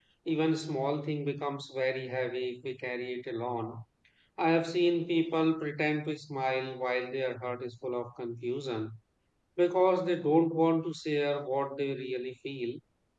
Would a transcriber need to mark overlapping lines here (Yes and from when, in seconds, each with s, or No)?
No